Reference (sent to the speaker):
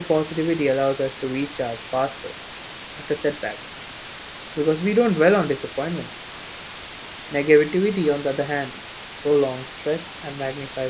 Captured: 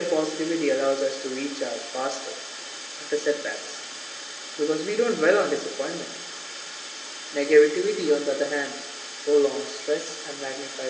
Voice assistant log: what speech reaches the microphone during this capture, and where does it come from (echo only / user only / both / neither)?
echo only